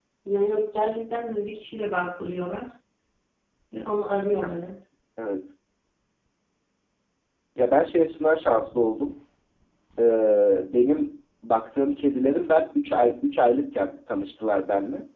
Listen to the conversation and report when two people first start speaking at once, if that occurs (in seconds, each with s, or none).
none